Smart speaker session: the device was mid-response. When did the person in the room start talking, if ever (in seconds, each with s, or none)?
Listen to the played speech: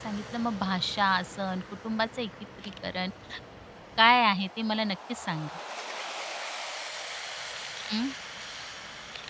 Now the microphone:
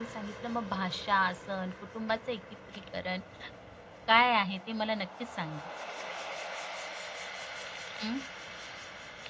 none